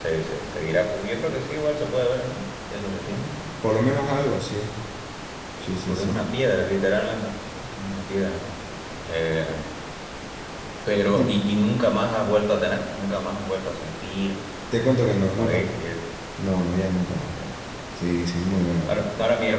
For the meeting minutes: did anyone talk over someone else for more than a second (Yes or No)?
No